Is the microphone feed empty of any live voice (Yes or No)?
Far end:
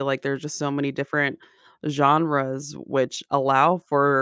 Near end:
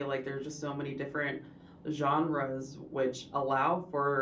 Yes